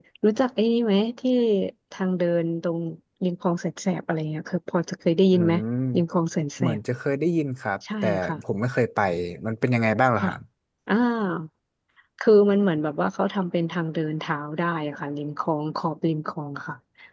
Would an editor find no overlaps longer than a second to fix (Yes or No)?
Yes